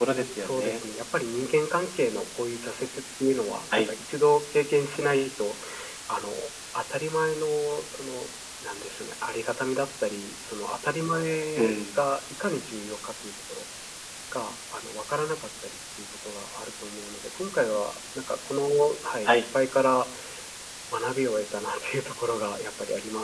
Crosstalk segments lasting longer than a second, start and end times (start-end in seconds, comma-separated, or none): none